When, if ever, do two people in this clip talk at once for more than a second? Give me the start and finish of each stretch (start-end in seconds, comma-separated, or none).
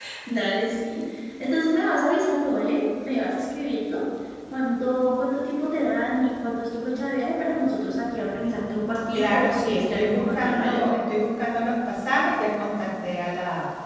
9.1-10.8